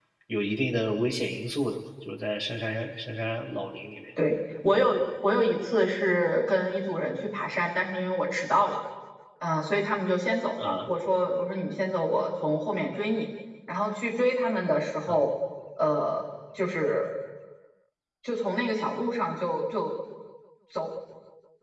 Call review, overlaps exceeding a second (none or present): none